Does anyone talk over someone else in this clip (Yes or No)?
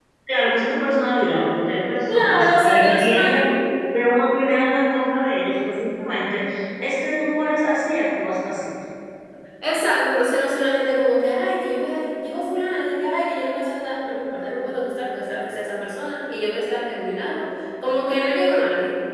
Yes